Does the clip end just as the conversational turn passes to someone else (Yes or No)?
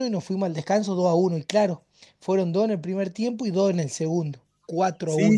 Yes